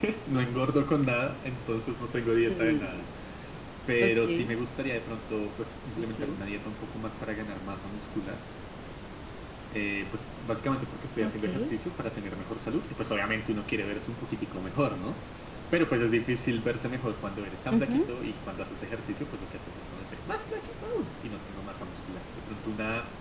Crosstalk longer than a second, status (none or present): none